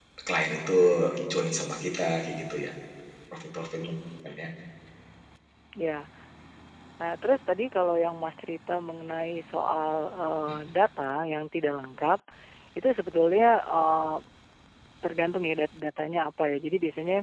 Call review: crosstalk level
none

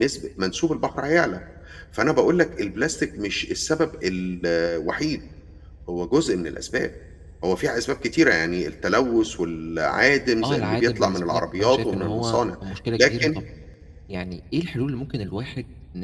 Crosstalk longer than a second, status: present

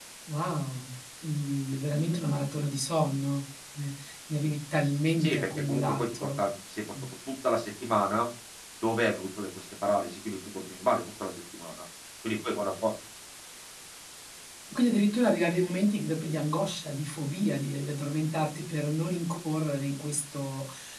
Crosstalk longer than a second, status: present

